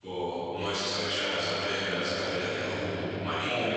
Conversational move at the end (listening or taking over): taking over